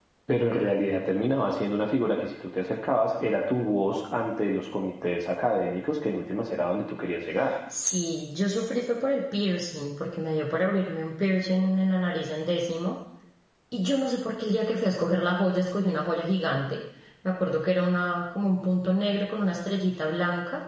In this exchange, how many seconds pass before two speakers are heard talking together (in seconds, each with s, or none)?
none